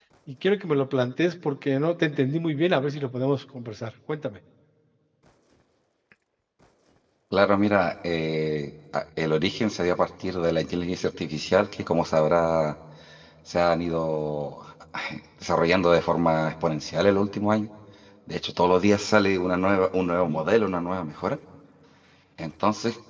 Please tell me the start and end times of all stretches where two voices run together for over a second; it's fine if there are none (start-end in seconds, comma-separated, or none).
none